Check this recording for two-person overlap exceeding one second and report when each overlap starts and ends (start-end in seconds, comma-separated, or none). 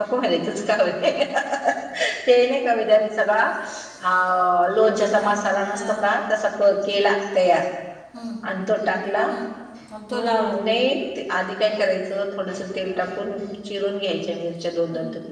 none